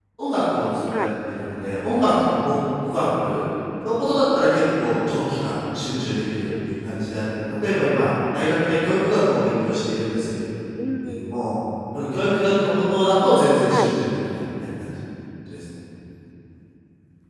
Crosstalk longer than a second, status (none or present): none